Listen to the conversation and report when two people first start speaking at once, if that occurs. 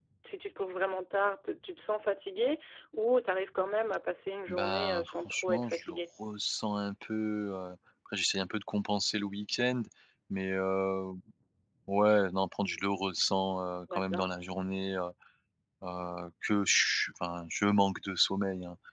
4.5 s

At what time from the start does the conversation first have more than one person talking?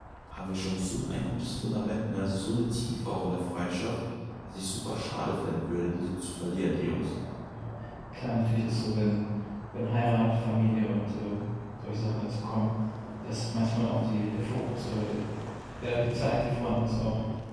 none

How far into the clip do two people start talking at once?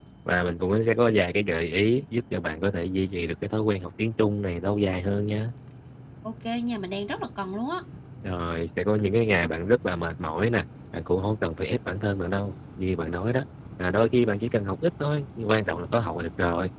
none

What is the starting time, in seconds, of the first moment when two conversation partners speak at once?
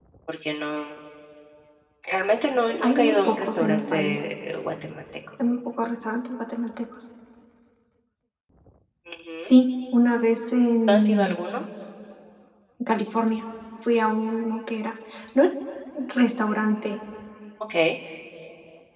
2.8 s

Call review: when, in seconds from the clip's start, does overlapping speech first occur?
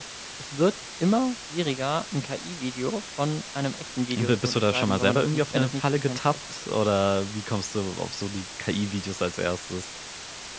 4.1 s

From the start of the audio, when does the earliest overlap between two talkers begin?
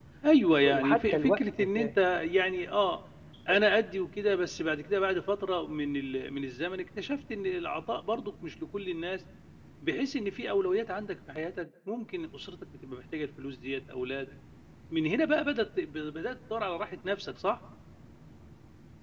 0.7 s

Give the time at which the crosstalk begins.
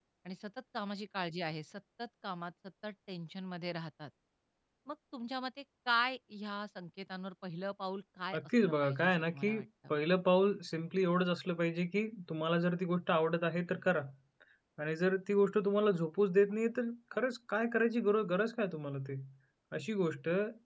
8.3 s

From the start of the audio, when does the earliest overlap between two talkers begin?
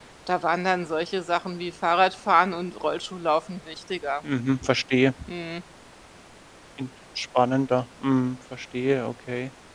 none

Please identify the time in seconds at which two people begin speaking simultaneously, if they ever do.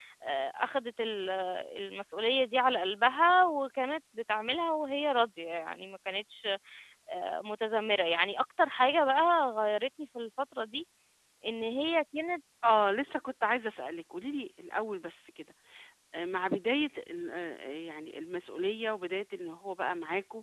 none

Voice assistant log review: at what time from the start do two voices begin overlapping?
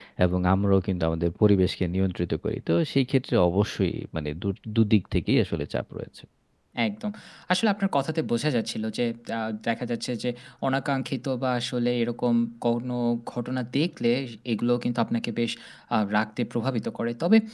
none

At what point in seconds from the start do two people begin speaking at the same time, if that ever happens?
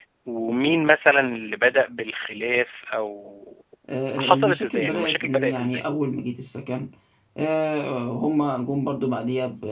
4.2 s

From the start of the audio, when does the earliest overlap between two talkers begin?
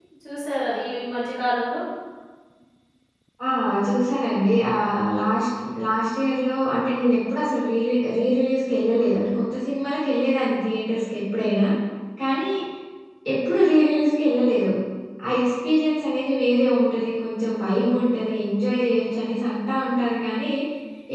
none

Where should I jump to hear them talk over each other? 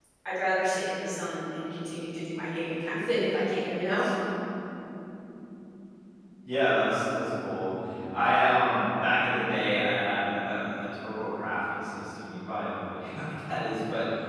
none

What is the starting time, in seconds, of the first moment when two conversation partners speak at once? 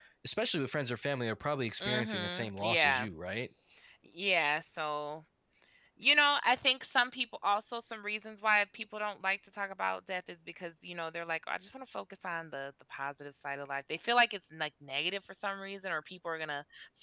1.8 s

